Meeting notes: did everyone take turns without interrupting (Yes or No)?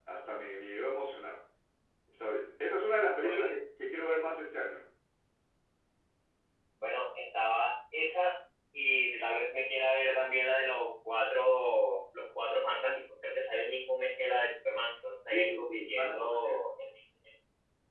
No